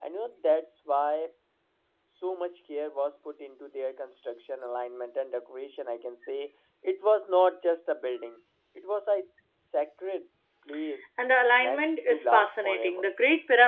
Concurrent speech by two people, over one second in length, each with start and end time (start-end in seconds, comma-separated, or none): 11.6-13.1